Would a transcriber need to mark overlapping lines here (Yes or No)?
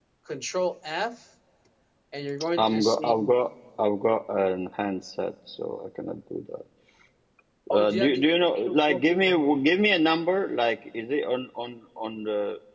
Yes